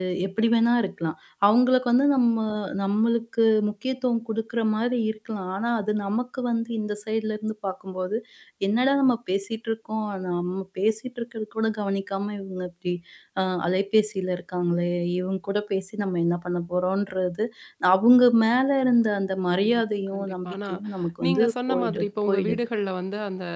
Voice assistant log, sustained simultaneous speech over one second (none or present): present